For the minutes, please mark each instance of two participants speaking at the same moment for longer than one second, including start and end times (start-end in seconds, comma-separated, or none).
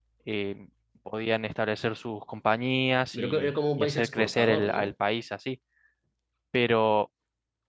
3.1-4.9